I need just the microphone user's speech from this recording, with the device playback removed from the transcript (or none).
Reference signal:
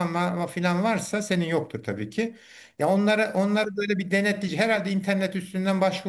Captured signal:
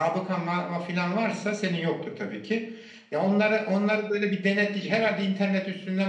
none